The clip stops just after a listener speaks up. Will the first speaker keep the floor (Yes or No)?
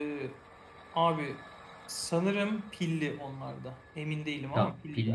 No